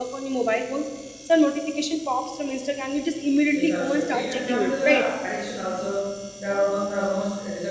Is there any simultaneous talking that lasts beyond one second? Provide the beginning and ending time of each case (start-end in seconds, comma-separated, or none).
3.5-5.0